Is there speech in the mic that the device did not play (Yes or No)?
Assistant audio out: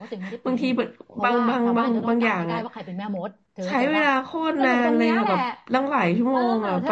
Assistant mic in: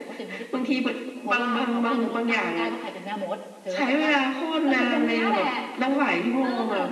No